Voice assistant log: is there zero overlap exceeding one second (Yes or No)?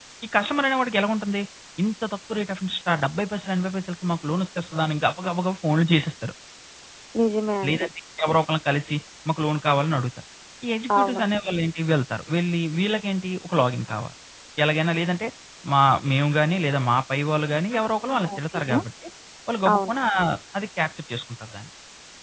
Yes